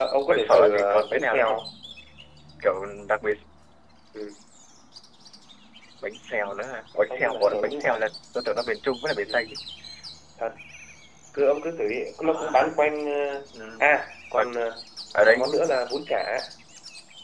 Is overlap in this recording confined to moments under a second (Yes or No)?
No